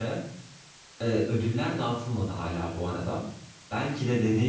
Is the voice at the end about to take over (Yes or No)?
No